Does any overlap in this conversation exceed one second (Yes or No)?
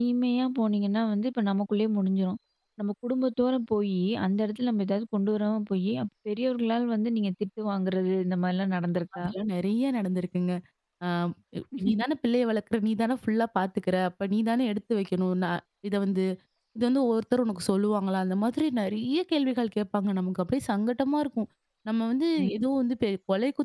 No